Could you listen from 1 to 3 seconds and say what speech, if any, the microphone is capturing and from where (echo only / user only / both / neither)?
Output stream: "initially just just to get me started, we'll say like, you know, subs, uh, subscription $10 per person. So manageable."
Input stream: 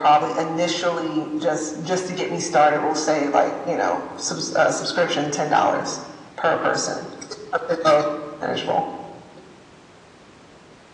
echo only